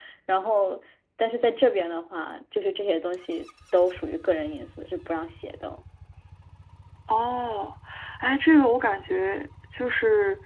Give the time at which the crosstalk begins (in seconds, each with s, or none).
none